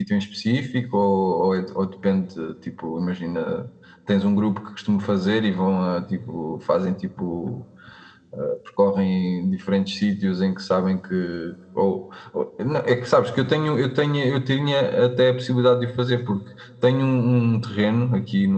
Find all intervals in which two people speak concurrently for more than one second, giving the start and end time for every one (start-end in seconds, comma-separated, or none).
none